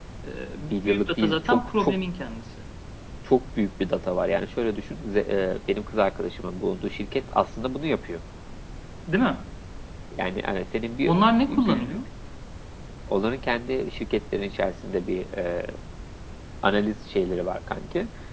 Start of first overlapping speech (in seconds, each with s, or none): 0.7 s